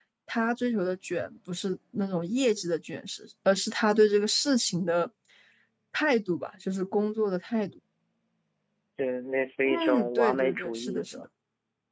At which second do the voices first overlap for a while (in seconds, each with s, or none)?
9.6 s